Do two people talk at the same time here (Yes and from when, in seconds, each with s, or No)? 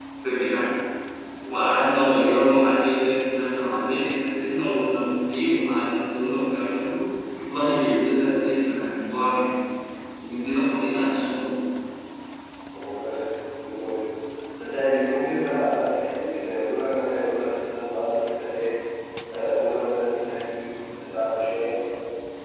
No